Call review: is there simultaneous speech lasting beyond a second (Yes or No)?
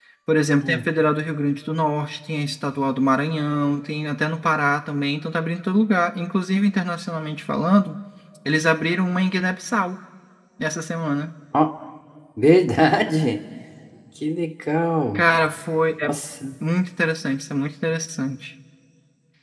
No